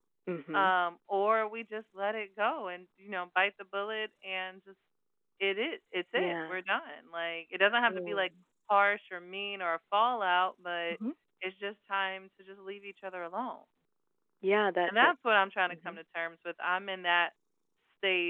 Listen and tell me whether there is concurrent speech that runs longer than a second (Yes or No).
No